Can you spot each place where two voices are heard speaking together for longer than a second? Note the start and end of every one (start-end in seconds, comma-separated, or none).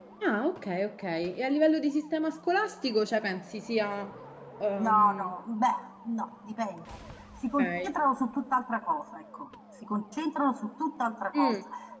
none